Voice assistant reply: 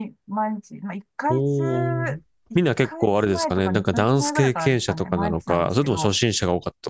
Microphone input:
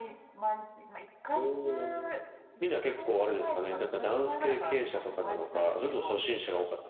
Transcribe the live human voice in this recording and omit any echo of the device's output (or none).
none